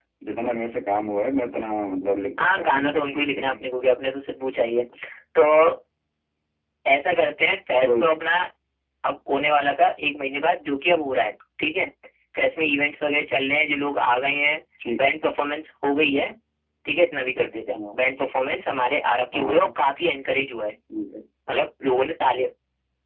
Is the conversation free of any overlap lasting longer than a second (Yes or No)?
No